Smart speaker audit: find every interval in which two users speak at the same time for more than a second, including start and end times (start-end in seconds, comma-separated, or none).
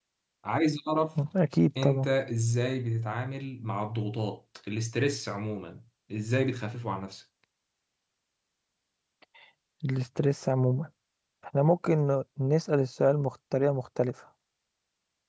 none